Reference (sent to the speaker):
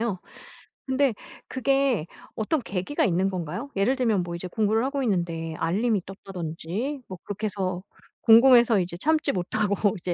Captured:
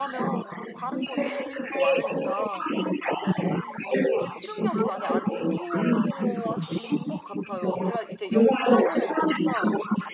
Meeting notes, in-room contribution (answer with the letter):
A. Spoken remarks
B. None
A